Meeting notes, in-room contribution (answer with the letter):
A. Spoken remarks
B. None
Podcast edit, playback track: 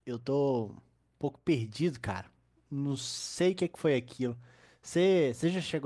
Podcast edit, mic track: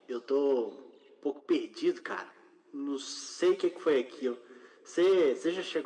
B